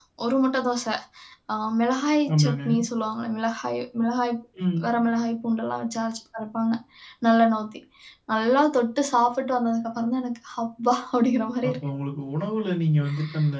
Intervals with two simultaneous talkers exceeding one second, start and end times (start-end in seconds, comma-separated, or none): none